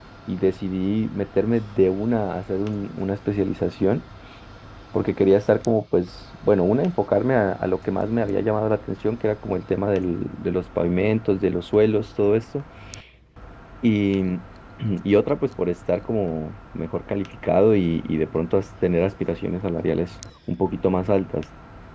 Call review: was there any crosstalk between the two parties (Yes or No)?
No